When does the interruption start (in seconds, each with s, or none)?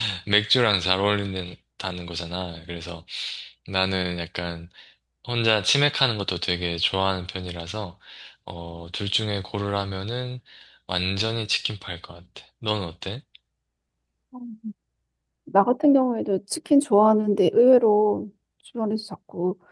none